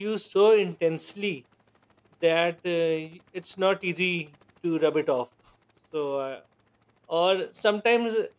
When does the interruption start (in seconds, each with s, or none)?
none